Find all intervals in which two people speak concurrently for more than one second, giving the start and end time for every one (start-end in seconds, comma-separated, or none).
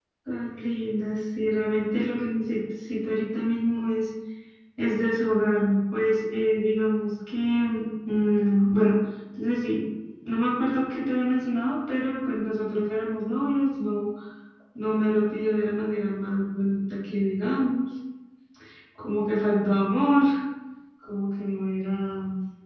none